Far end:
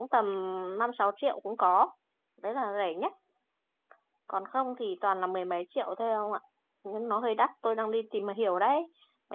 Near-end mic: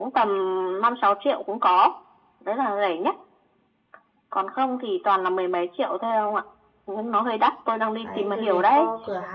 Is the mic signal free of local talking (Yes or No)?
No